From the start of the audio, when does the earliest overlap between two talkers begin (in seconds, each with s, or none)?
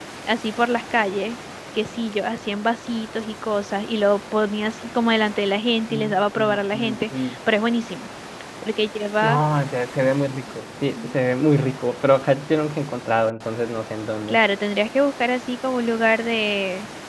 5.9 s